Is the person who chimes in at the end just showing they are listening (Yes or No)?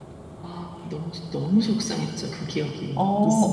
No